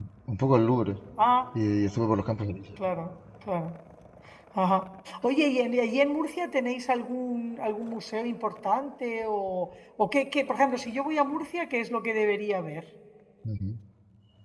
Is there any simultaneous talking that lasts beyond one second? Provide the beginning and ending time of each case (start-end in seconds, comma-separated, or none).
none